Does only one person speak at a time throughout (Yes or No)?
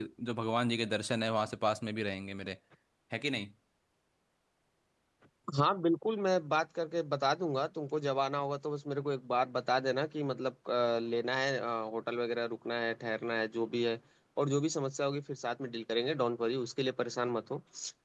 Yes